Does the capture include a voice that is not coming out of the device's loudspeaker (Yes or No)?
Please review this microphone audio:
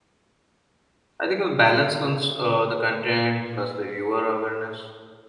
Yes